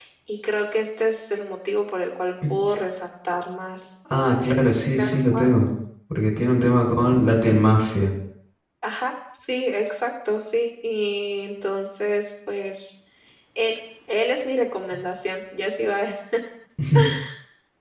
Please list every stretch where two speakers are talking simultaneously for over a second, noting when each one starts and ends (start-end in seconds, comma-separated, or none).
4.1-5.5